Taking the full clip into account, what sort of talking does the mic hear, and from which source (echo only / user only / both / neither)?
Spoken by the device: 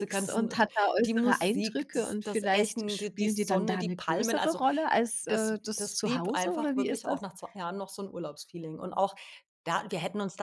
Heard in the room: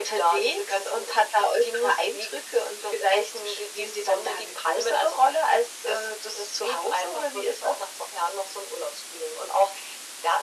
echo only